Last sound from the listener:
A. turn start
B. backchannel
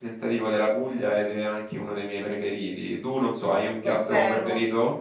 A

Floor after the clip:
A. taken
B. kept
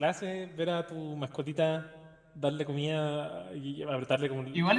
A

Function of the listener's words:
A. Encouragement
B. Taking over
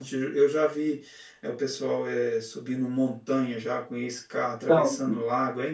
A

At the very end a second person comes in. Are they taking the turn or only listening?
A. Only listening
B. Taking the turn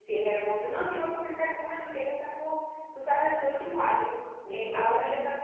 A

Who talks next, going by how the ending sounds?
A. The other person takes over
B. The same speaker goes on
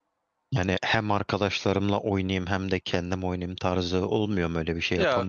A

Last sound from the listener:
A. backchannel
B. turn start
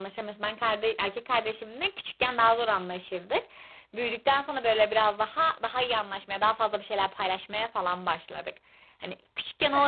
A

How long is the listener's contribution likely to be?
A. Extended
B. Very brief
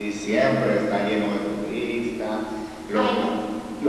B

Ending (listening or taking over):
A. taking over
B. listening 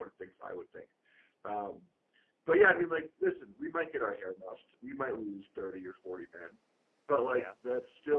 B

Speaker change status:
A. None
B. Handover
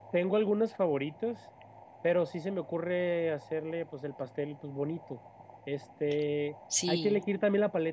A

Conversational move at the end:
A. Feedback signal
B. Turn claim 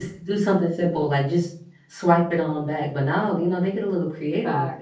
B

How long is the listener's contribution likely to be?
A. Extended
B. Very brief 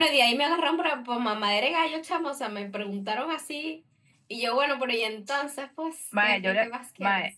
A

